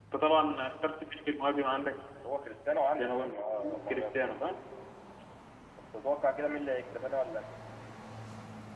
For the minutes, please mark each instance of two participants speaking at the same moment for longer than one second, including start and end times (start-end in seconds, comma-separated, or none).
2.9-4.4